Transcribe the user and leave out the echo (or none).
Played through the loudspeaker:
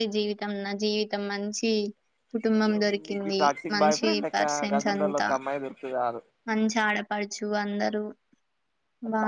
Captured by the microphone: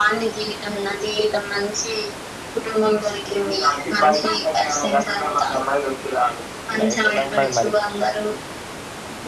లైఫ్ ఎలా ఉండది మరి ఇప్పుడు